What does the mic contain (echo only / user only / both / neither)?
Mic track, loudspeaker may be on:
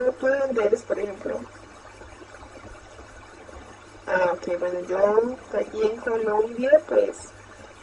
echo only